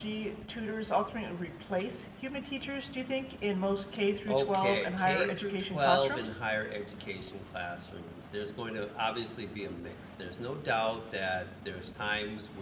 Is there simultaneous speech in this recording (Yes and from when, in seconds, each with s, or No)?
Yes, from 4.3 s